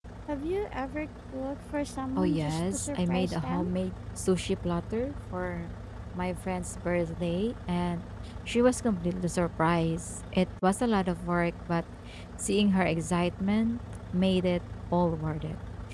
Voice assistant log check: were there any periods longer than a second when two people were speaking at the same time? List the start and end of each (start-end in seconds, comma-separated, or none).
2.2-3.6